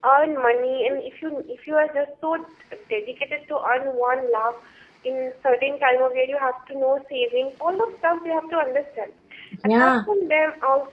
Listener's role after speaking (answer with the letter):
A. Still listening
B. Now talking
A